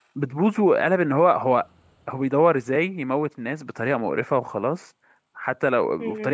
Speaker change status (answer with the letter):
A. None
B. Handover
A